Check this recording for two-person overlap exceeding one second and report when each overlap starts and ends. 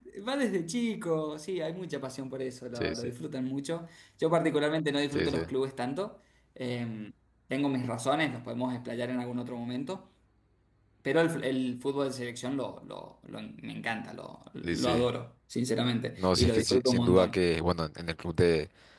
16.2-17.4

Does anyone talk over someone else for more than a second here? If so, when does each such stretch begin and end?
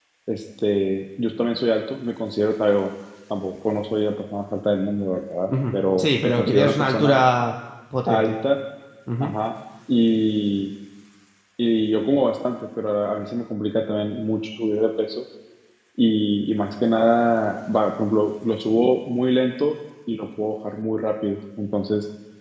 5.5-7.2

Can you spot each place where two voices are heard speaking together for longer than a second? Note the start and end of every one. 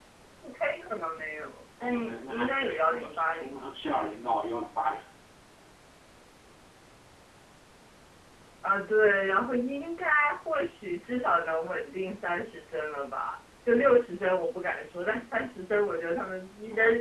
1.8-3.7

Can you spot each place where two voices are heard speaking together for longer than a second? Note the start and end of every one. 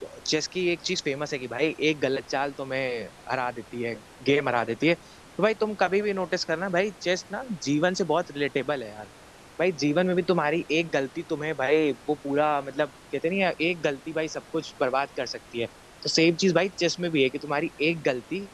none

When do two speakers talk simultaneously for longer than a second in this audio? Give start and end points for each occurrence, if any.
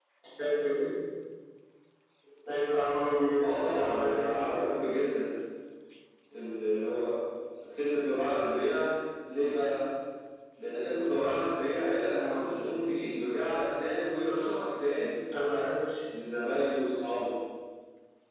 3.4-4.8

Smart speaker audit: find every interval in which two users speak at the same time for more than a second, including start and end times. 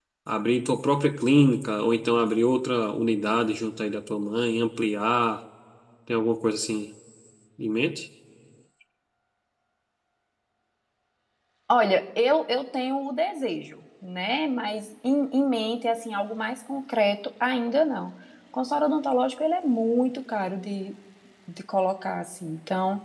none

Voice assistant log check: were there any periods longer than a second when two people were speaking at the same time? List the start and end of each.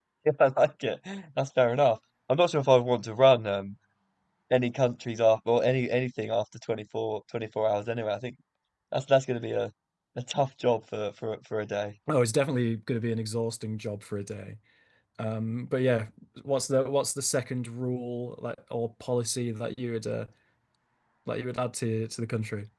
none

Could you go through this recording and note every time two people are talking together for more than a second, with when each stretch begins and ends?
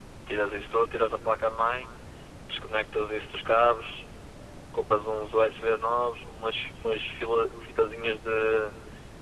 none

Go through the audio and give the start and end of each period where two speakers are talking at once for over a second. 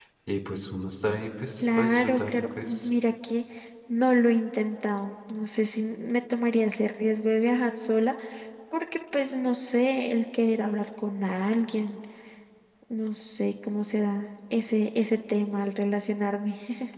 1.6-2.9

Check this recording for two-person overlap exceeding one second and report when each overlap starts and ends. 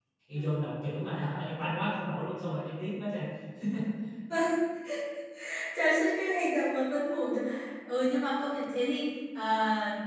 none

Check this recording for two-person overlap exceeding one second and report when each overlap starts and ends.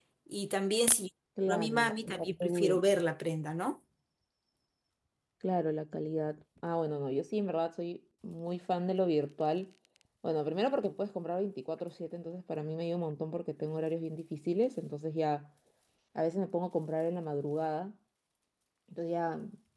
1.5-2.8

